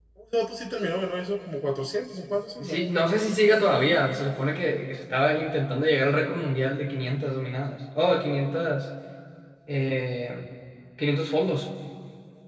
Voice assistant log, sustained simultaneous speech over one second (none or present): none